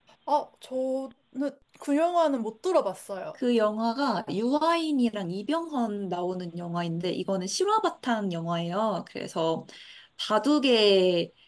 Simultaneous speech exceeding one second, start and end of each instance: none

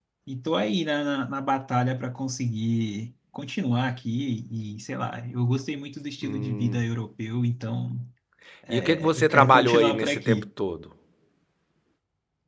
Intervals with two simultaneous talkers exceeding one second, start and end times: 8.7-10.4

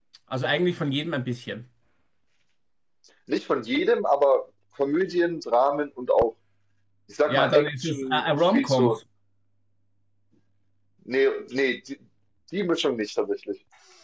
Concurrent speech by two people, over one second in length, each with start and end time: 7.3-9.0

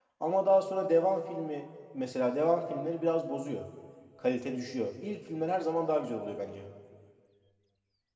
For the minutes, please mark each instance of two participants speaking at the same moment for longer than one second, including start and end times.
none

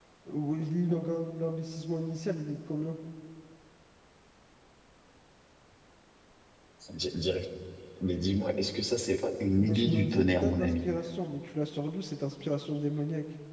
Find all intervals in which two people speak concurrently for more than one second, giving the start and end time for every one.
9.5-10.9

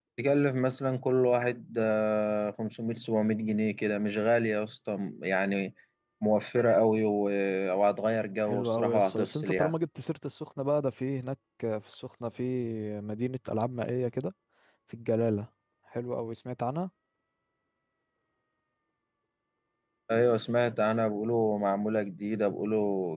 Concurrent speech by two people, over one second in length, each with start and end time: 8.5-9.7

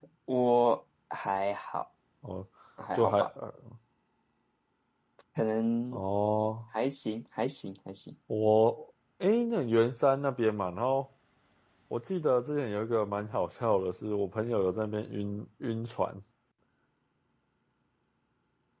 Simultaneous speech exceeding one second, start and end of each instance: none

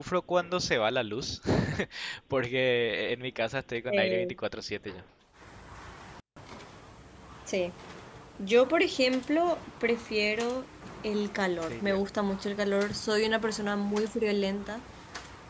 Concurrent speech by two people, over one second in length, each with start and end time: none

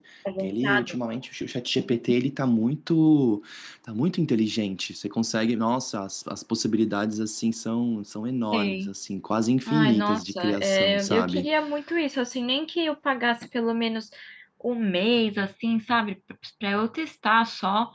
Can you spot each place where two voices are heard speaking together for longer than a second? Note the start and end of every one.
9.7-11.5

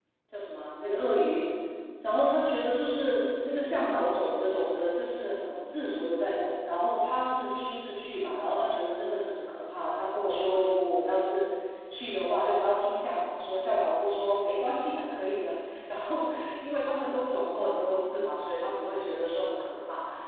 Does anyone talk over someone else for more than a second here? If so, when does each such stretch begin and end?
none

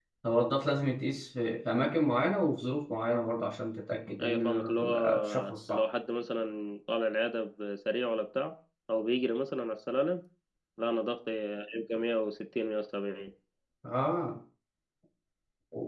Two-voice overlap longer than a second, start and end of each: 4.2-5.8

